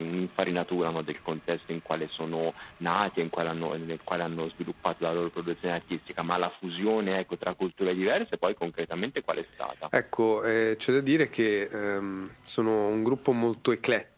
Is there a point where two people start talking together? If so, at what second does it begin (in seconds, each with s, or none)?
none